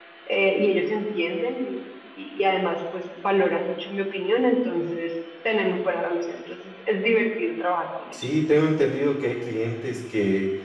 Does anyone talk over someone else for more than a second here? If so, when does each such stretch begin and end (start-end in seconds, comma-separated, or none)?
none